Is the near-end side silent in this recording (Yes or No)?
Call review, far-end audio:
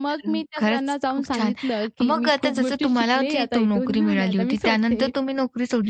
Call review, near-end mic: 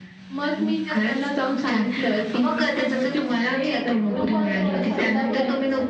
No